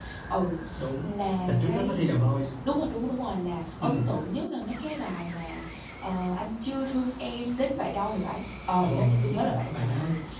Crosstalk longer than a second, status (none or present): present